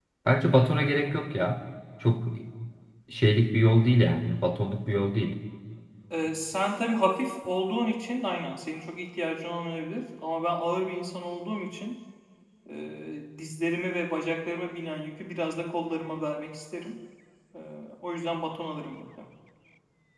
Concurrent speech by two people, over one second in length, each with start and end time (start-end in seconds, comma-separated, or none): none